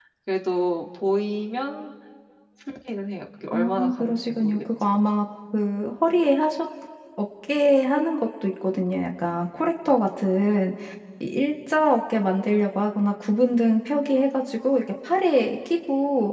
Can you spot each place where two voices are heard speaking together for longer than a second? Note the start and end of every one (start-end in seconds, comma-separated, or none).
3.5-5.0